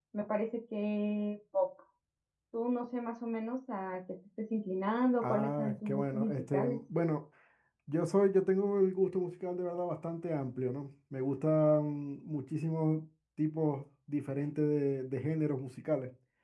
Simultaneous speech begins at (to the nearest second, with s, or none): 5 s